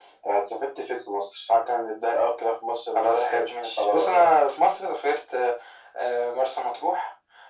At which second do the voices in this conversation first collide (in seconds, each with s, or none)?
3.0 s